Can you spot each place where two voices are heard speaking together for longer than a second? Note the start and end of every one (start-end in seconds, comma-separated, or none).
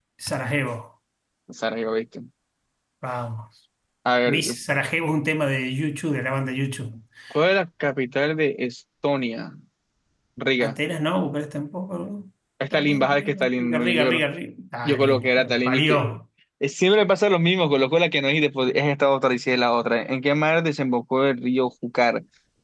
12.7-14.2, 14.8-16.2